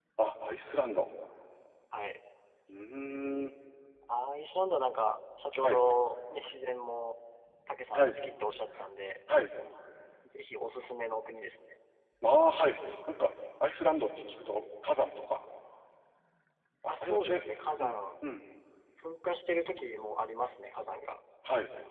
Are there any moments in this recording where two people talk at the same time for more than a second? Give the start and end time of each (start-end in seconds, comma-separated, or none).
none